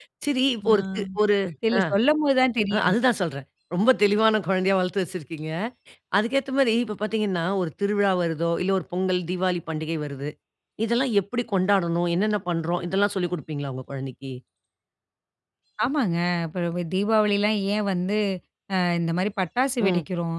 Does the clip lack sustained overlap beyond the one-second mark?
Yes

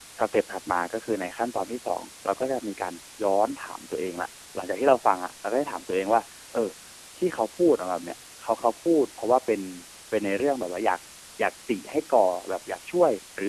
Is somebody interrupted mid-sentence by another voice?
No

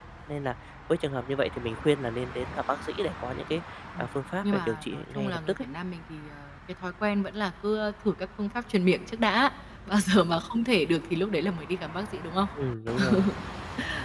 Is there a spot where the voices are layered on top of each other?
Yes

